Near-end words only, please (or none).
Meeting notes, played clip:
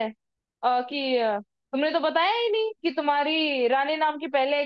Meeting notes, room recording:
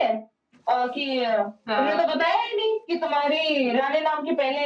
हाँ